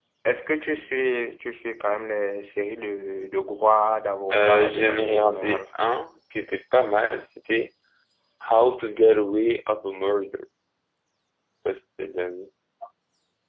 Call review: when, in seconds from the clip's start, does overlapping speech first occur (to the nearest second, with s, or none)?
4 s